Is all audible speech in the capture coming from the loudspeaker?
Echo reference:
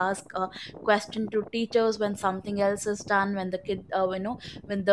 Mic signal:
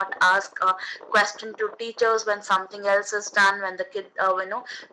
Yes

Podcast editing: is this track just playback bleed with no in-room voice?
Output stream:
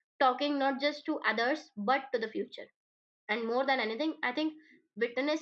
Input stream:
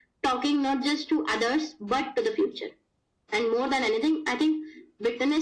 Yes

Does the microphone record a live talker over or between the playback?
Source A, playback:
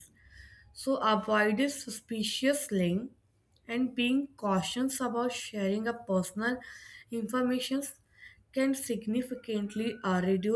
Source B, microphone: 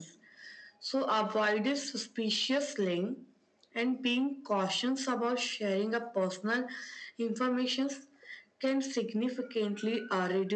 No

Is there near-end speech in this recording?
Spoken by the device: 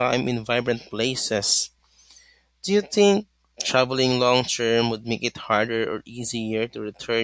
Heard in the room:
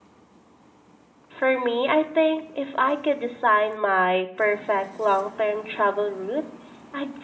Yes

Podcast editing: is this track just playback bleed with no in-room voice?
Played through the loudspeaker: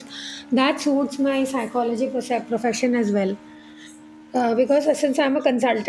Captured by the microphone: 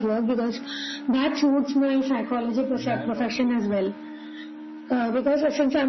No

